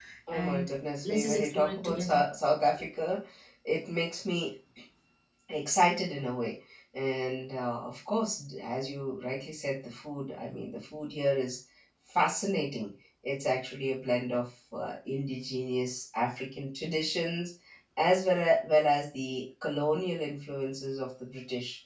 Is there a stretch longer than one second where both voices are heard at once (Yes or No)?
Yes